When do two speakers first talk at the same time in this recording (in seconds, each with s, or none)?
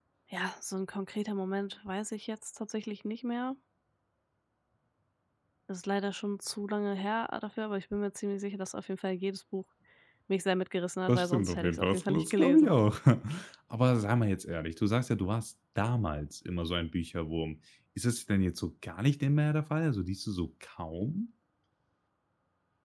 11.1 s